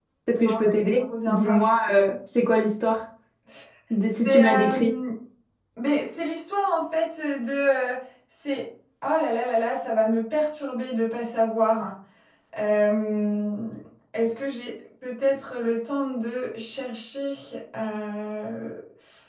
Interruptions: present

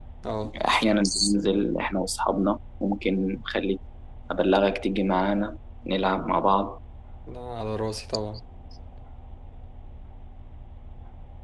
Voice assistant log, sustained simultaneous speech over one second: none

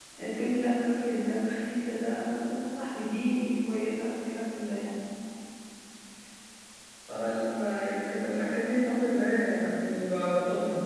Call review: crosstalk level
none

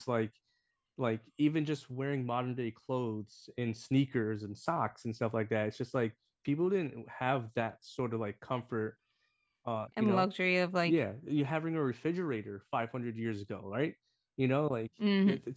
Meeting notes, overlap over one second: none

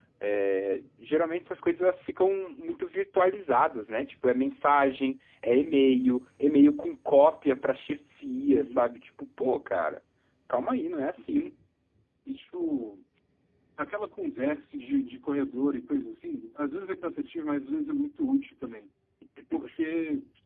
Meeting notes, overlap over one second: none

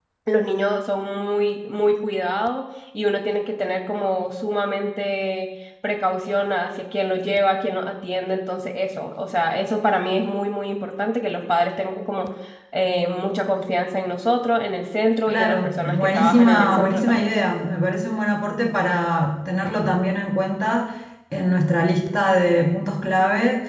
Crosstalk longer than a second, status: present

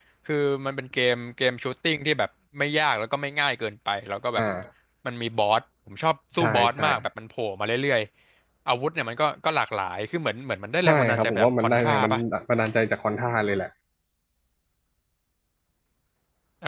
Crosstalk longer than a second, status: present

